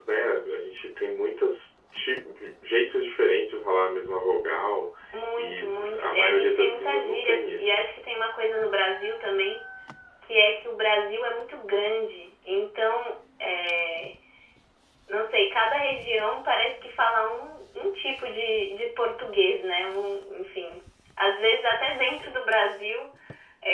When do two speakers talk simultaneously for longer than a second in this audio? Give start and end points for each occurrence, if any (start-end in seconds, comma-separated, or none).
5.4-7.9